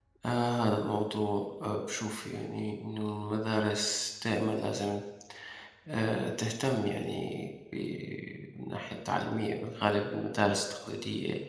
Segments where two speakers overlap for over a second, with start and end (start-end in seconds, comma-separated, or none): none